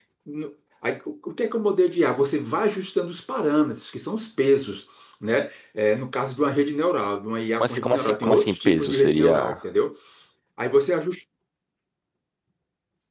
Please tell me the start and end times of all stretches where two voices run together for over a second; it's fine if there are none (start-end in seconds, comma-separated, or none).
7.6-9.6